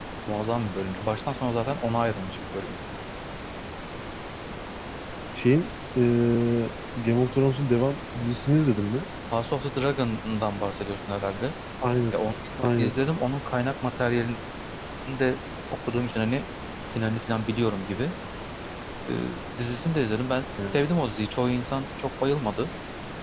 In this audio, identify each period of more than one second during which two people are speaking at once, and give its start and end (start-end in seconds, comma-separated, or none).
none